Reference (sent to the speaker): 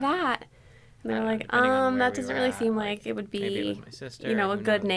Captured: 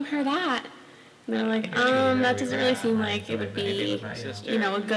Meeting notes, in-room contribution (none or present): present